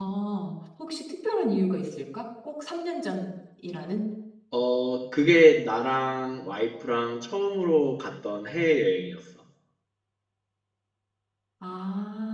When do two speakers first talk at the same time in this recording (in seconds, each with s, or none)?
none